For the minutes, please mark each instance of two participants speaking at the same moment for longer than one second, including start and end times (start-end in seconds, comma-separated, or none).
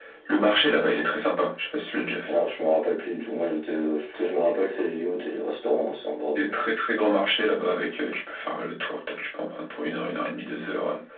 none